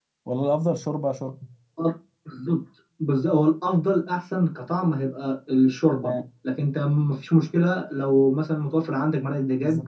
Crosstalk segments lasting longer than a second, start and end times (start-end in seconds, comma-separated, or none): none